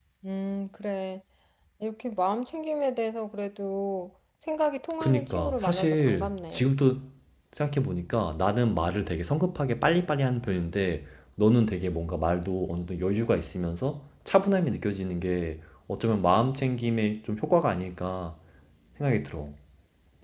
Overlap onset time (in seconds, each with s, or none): 5.0 s